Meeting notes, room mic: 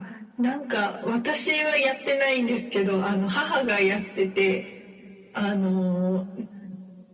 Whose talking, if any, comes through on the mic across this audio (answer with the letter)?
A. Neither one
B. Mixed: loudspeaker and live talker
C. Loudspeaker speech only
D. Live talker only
C